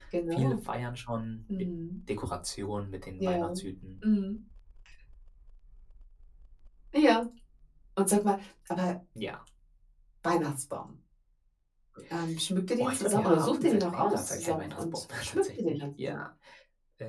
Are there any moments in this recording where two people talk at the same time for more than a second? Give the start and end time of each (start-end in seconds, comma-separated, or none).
12.8-16.1